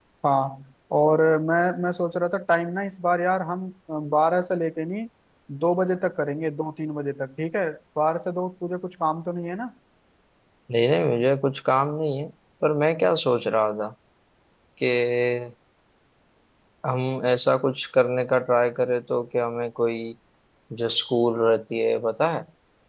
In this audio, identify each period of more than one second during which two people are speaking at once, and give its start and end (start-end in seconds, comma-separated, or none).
none